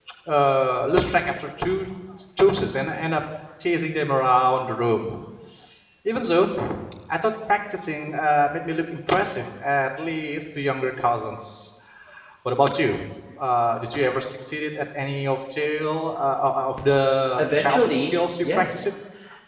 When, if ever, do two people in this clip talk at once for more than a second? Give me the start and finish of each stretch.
17.4-18.9

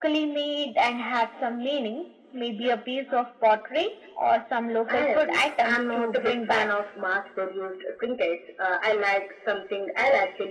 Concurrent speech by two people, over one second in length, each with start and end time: 4.9-6.7

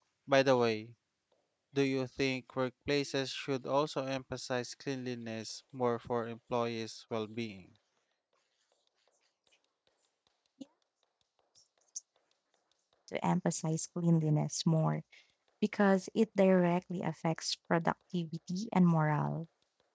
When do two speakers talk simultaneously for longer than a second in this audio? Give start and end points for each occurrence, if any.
none

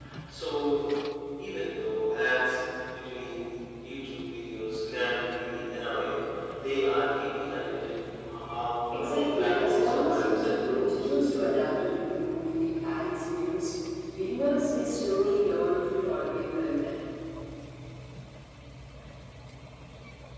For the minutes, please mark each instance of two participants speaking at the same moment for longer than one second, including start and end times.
8.9-11.1

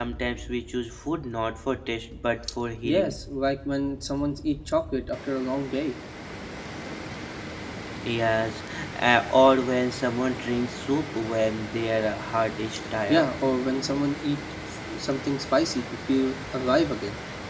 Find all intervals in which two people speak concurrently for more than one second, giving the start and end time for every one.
none

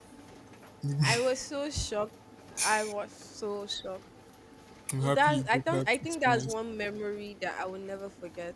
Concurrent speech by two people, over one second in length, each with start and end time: 5.0-6.5

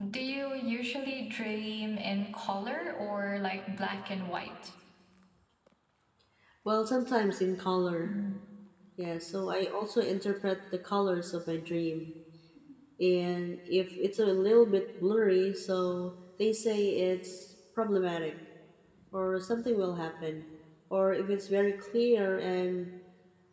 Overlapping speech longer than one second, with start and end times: none

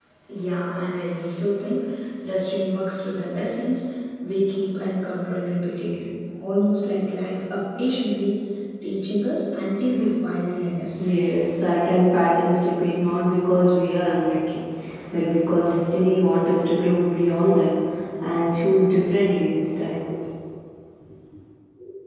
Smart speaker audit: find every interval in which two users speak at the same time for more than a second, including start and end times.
none

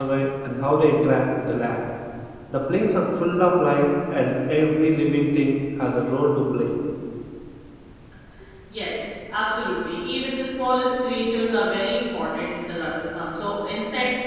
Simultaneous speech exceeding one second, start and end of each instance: none

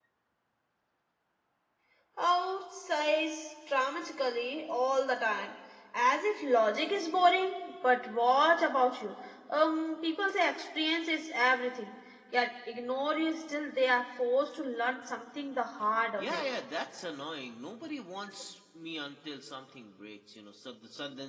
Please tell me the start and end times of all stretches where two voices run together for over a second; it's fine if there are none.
none

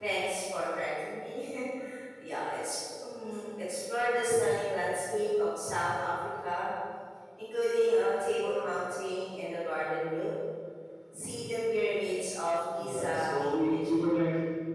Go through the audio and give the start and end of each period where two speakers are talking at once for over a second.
12.8-14.0

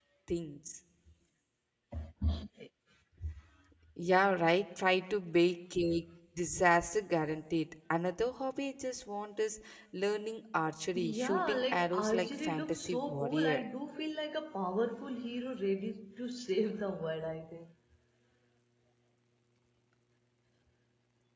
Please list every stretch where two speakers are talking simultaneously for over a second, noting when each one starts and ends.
10.9-13.6

